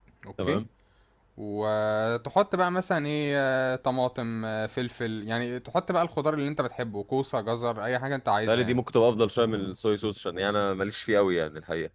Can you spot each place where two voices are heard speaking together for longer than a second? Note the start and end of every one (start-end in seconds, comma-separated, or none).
none